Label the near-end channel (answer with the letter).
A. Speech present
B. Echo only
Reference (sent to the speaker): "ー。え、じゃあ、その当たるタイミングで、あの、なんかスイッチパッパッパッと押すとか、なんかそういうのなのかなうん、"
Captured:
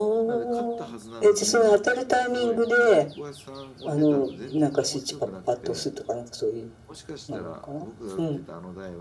A